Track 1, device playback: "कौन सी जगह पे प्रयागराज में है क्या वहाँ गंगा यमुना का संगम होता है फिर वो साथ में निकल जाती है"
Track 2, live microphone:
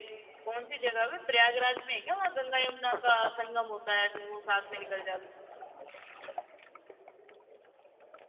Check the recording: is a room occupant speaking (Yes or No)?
Yes